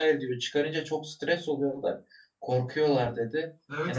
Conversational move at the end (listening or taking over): taking over